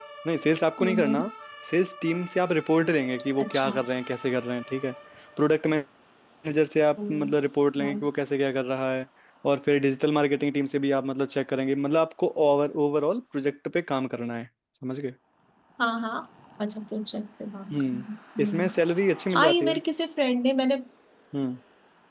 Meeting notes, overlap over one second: none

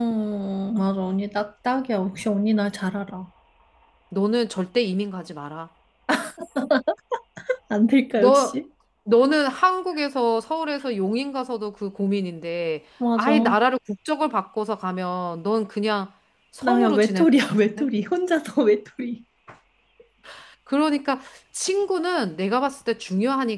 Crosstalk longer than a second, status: present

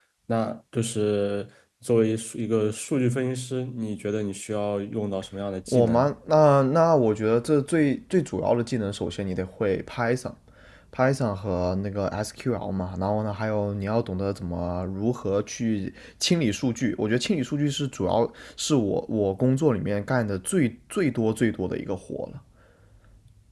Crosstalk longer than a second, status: none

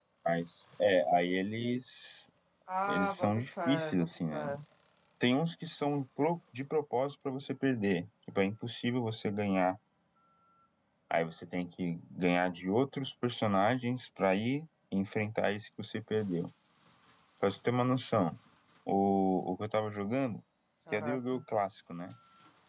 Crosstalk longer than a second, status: present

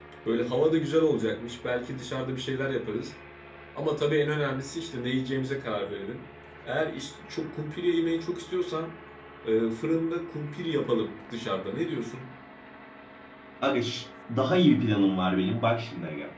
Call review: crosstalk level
none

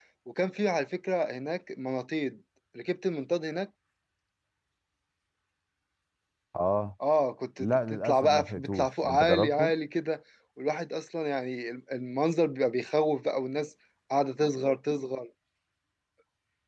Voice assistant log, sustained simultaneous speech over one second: present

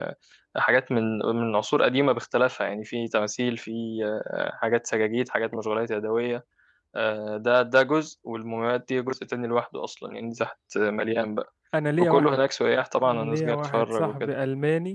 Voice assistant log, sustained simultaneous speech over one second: present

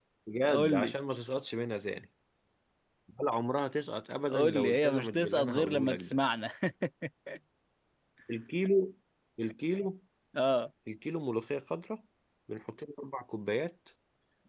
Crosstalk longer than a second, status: present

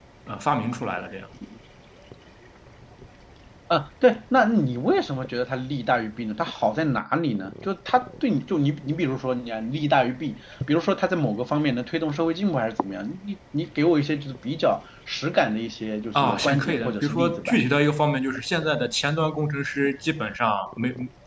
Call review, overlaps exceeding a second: present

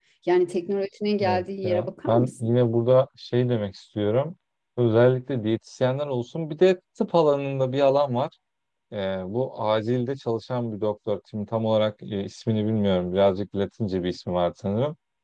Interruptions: present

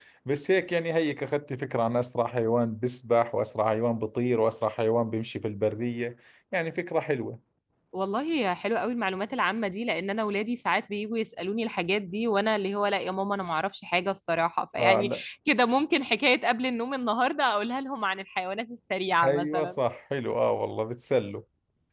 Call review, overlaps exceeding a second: none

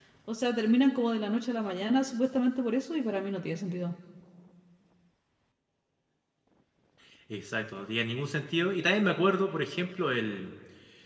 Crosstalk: none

